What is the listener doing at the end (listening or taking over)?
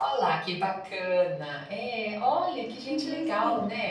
taking over